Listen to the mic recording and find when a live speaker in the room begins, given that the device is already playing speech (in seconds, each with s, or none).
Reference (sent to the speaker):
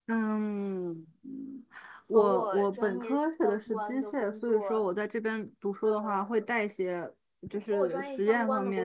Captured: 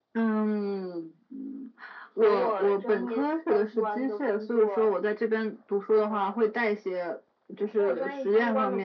none